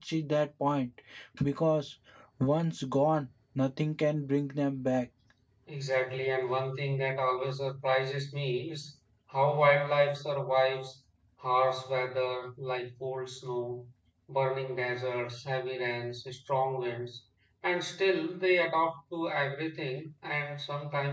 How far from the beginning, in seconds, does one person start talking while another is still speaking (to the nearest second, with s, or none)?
none